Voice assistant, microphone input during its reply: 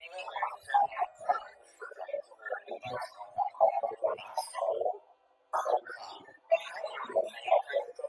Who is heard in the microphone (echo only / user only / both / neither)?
echo only